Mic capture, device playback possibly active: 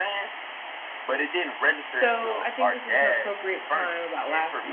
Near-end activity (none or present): present